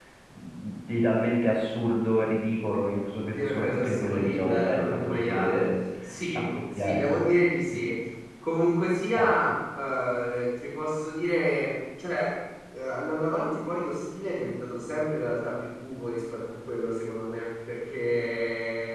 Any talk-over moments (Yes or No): Yes